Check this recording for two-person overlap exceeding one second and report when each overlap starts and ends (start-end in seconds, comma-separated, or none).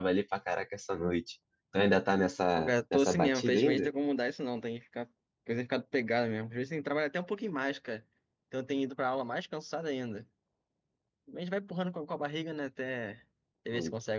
2.6-3.9